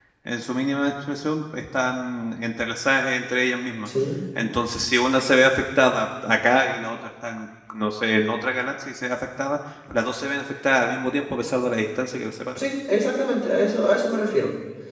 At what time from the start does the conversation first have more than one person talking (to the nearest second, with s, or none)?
none